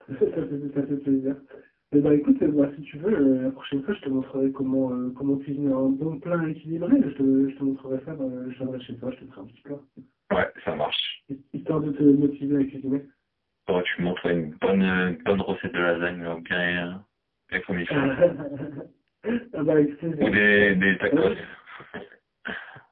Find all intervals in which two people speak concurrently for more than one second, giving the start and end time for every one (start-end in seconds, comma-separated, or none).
none